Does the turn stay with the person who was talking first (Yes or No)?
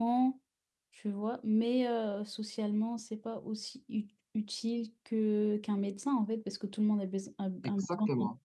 Yes